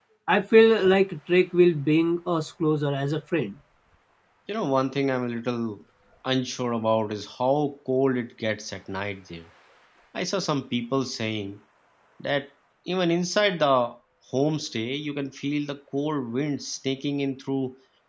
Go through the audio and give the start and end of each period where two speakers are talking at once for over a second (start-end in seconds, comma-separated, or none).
none